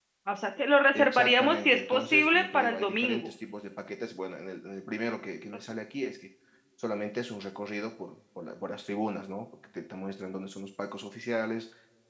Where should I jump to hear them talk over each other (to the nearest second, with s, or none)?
1 s